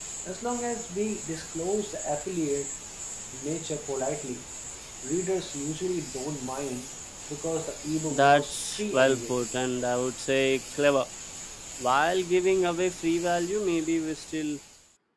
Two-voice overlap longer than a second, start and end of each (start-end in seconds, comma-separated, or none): 8.1-9.4